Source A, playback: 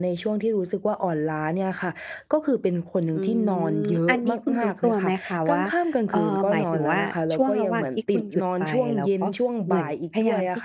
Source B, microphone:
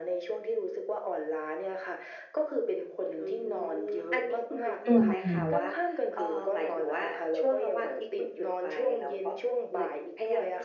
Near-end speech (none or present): present